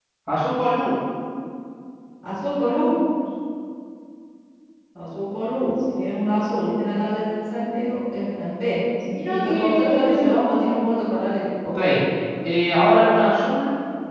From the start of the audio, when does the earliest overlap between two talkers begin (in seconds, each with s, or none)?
9.1 s